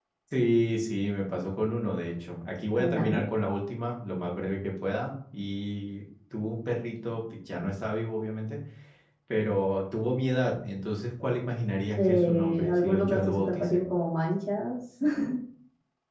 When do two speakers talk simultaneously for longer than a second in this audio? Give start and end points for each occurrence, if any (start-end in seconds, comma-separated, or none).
12.0-13.8